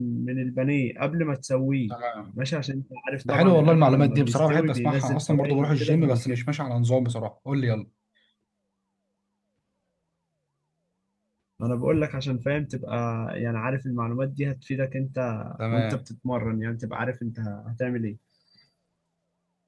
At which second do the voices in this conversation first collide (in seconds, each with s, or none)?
3.3 s